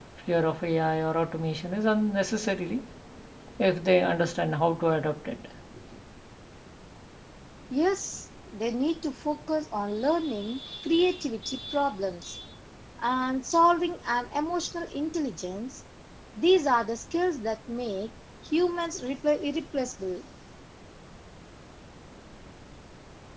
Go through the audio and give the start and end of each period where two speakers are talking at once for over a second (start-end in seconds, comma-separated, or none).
none